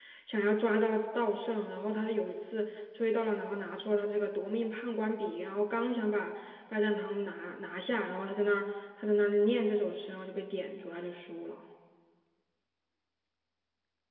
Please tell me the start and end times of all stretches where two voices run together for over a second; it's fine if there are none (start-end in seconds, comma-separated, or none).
none